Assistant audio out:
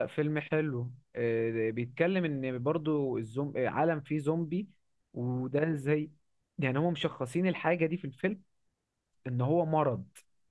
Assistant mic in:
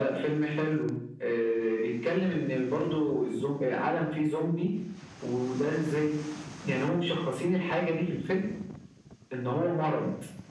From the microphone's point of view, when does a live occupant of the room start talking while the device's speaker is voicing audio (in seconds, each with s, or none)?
none